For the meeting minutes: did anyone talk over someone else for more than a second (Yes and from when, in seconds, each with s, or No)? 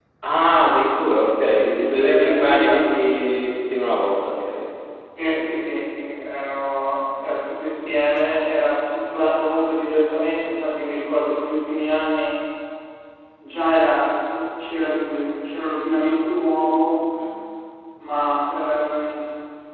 Yes, from 1.6 s